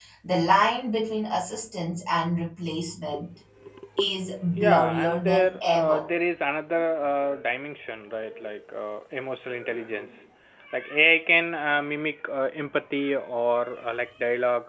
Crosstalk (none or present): present